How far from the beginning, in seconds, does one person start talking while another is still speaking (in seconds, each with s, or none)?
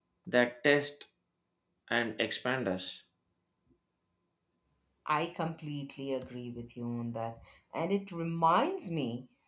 none